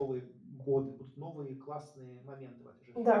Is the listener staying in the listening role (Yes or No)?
No